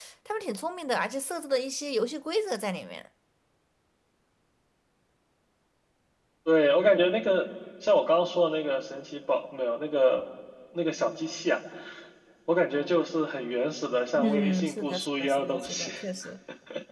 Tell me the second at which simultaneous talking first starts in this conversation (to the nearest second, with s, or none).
14 s